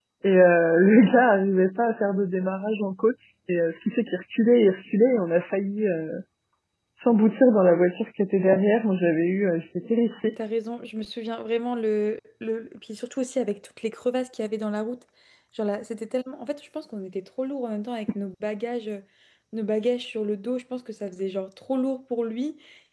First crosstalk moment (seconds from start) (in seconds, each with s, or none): none